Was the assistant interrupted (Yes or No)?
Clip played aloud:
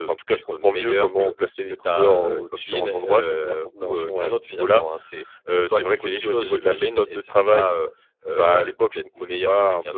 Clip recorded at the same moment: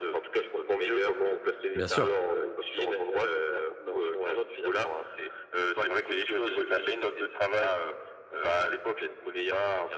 Yes